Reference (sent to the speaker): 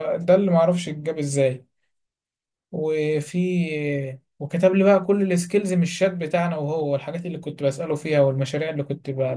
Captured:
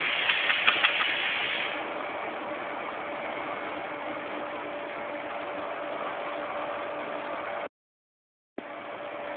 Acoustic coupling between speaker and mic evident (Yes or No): No